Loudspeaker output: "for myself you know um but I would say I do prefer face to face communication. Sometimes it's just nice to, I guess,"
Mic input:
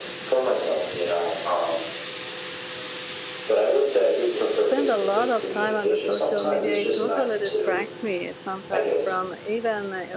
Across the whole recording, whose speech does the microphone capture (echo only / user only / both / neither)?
both